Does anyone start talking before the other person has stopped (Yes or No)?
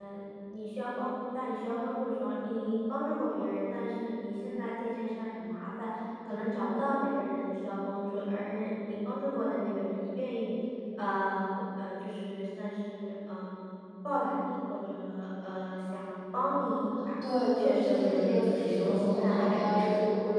Yes